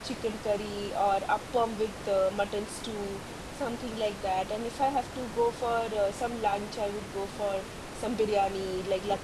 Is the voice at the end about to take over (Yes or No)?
No